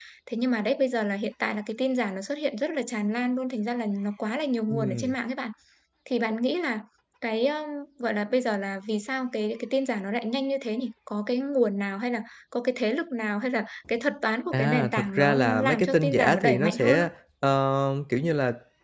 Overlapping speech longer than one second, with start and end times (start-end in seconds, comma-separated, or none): 14.5-17.1